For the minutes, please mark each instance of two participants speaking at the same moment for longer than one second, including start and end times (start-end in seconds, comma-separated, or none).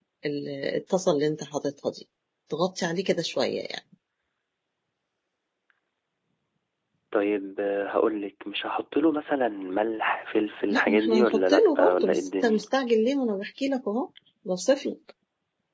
10.7-12.6